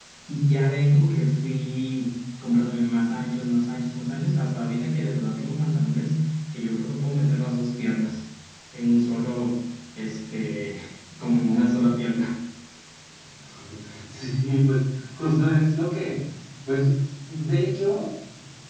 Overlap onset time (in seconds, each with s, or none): none